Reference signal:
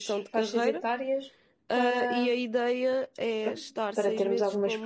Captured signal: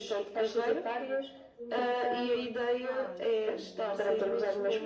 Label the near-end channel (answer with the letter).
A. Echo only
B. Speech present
B